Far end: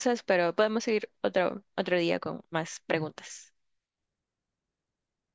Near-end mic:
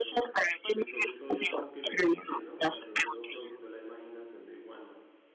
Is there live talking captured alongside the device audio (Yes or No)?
Yes